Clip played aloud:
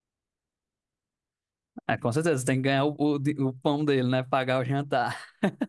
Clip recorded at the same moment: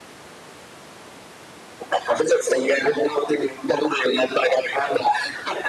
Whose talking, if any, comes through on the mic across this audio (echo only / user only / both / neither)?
echo only